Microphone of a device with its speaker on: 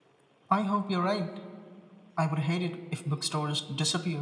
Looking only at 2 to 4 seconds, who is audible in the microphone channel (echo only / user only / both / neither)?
echo only